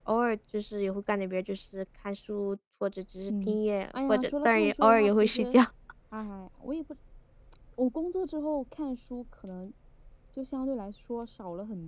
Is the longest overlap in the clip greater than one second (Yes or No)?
Yes